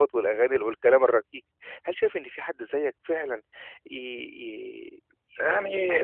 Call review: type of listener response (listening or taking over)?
listening